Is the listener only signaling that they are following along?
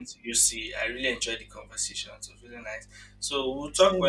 Yes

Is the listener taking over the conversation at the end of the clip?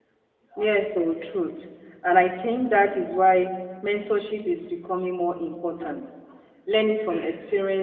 No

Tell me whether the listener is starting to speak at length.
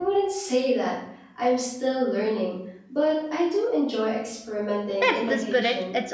Yes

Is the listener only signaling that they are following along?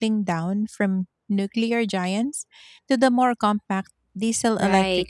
No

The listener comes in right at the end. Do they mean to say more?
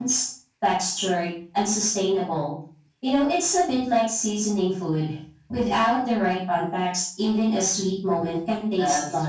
Yes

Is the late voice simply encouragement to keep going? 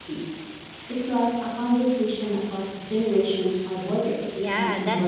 No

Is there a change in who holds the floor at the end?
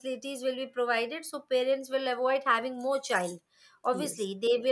No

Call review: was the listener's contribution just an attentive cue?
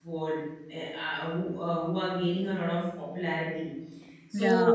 Yes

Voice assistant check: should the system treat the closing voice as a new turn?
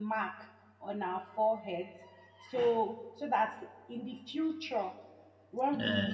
No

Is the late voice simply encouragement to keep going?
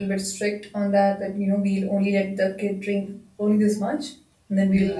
Yes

